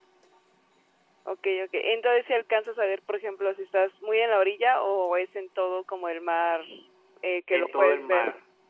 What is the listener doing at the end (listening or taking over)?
taking over